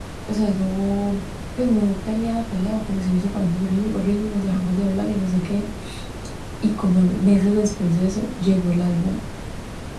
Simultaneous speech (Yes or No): No